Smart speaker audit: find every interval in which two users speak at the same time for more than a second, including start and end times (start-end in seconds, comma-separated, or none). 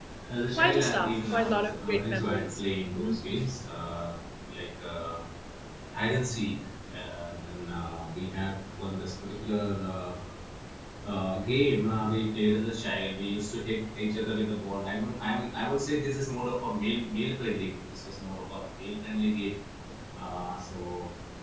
0.6-2.6